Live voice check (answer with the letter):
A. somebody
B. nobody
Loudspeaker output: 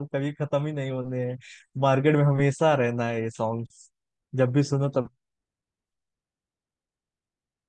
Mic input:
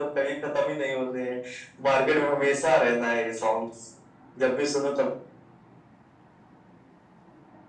B